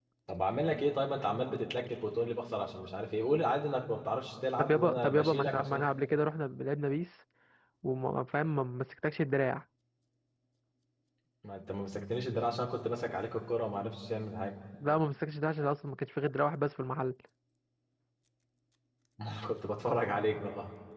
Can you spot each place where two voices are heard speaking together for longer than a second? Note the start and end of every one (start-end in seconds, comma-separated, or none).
4.6-5.9